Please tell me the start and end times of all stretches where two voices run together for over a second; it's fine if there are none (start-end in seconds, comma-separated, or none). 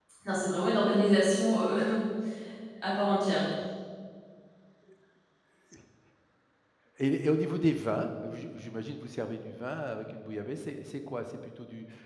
none